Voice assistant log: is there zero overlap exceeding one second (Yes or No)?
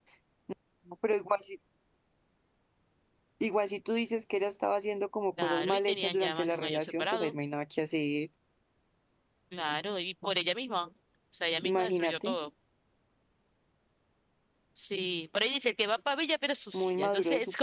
No